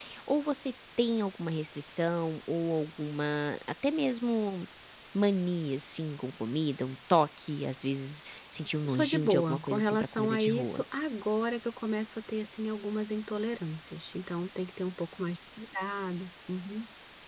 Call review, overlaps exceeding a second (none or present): present